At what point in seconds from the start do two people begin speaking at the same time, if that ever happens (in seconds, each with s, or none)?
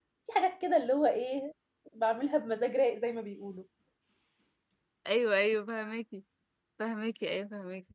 none